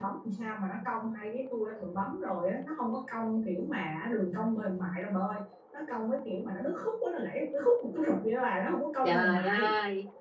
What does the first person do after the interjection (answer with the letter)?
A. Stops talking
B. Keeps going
A